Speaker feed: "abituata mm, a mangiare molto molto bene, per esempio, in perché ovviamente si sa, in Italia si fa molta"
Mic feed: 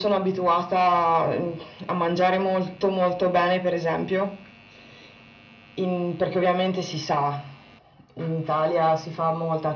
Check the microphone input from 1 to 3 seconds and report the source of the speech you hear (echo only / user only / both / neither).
echo only